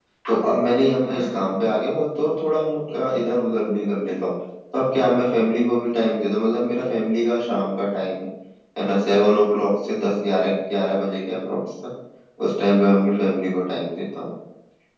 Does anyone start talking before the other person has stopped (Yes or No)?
No